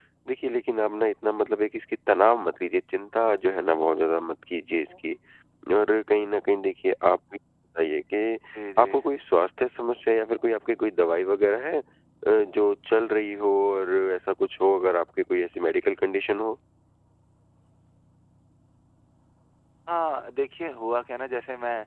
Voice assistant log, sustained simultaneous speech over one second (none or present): none